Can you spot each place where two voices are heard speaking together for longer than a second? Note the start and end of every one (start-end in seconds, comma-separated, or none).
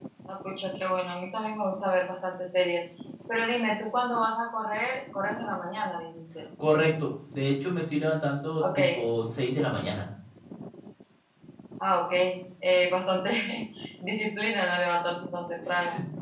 none